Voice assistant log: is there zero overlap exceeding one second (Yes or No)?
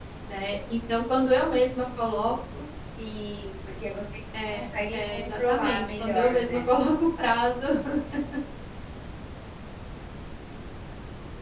No